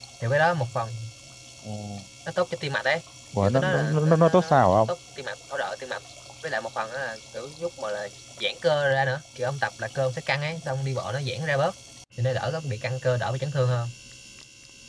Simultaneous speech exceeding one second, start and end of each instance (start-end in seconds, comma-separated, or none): 3.4-4.9